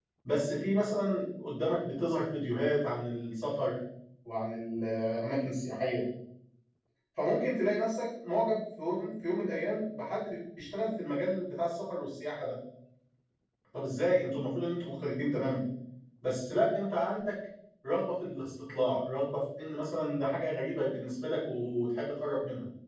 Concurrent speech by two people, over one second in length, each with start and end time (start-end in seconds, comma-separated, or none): none